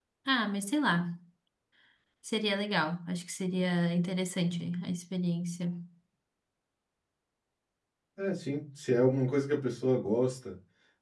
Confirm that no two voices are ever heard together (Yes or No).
Yes